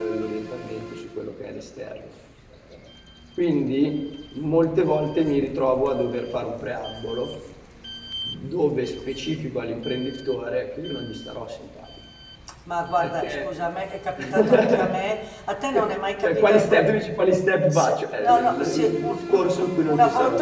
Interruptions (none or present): present